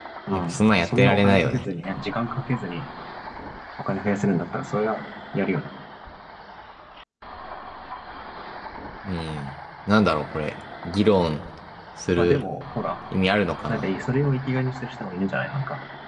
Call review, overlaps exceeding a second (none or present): present